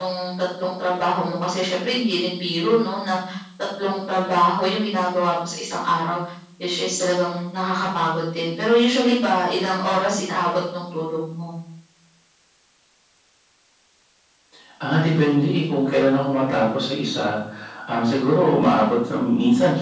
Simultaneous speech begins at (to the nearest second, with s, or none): none